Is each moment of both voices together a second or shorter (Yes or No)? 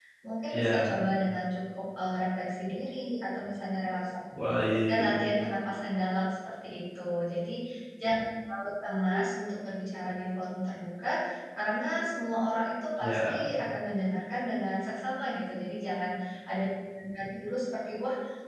Yes